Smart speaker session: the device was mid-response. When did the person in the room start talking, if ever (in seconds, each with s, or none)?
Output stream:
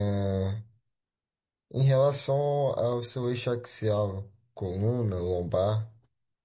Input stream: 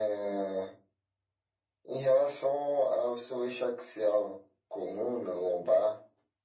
none